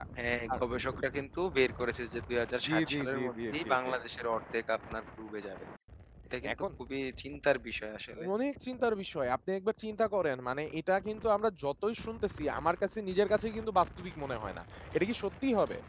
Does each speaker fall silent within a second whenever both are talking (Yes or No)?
No